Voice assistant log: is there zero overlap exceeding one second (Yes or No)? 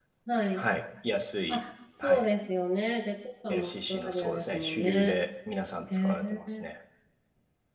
No